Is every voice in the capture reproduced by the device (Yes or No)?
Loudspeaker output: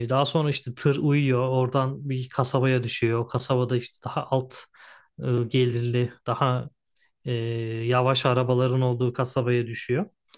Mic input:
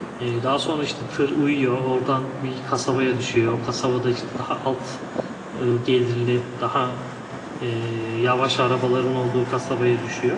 Yes